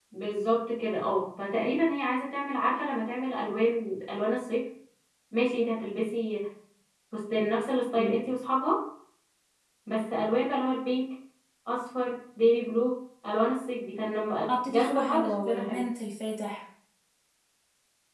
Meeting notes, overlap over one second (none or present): present